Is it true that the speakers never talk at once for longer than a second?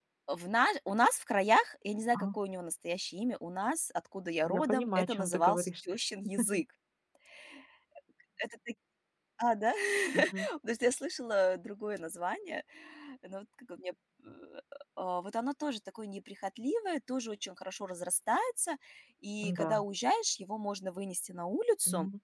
No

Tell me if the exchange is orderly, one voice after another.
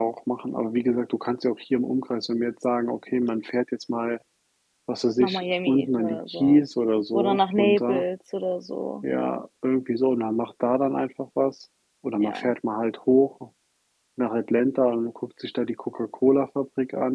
No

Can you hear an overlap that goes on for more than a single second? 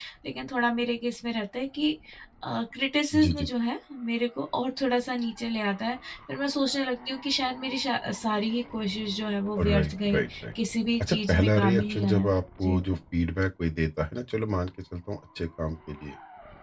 Yes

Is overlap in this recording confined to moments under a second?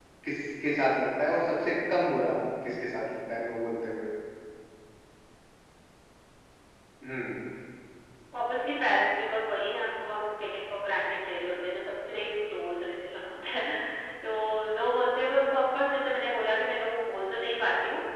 Yes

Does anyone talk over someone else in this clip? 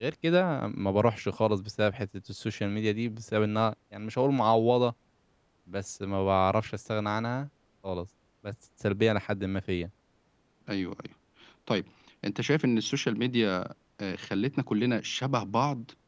No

